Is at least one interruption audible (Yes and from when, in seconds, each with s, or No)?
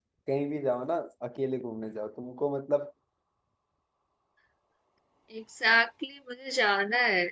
No